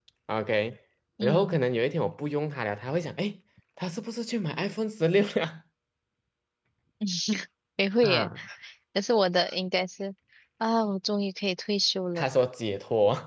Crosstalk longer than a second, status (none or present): none